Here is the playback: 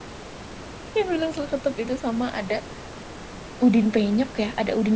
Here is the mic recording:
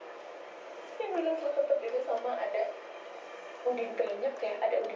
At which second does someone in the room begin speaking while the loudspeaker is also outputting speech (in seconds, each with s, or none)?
none